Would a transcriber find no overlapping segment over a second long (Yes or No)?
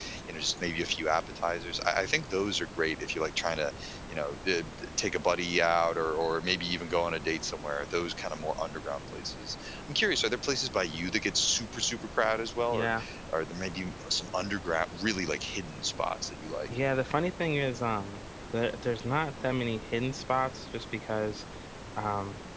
Yes